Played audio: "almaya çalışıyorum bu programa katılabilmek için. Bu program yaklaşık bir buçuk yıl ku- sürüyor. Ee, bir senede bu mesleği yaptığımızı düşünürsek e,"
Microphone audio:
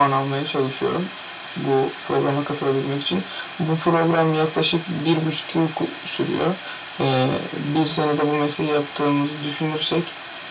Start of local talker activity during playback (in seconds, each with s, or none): none